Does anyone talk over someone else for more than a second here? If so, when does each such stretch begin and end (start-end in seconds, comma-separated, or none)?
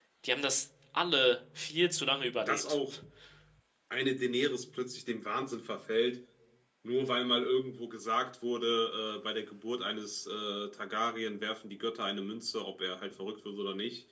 none